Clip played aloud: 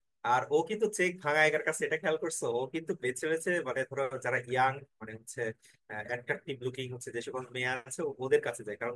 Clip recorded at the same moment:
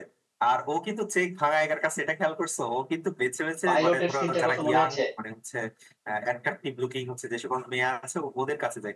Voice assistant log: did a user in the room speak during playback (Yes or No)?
Yes